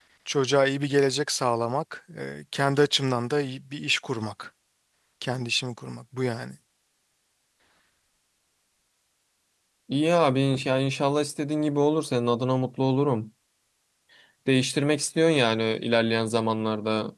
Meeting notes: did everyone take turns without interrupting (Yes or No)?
Yes